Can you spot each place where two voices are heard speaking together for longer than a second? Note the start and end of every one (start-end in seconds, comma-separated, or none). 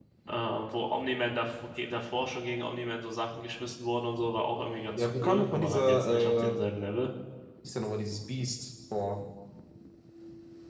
5.0-6.5